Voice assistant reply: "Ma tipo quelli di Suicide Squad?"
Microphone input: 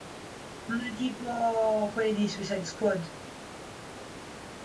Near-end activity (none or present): none